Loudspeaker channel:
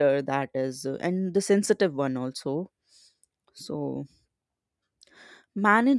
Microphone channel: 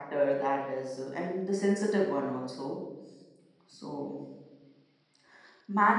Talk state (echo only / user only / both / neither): echo only